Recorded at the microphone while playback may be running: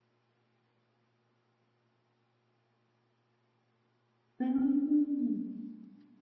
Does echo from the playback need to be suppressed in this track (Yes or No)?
No